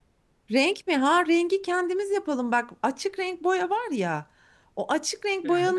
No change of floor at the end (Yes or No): Yes